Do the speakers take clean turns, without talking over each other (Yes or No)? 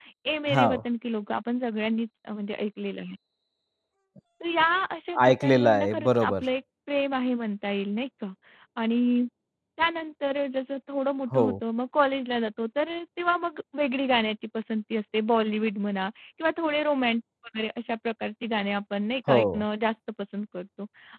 No